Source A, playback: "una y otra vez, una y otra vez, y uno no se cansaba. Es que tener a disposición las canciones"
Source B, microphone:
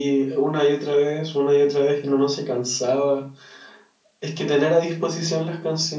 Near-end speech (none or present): none